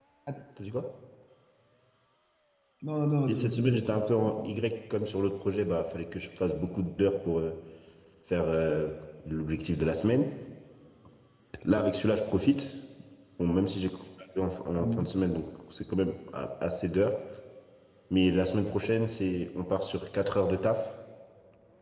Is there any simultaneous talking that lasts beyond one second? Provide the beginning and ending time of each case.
3.3-4.6

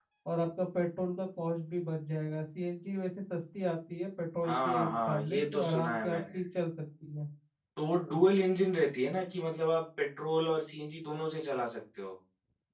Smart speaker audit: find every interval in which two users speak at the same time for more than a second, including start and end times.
4.4-6.4

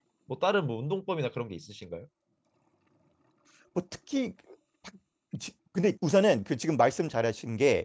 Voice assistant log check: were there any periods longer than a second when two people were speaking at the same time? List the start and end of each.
none

